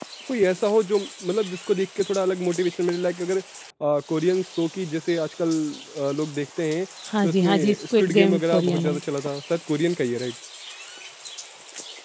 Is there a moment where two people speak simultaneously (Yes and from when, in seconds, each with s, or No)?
Yes, from 7.2 s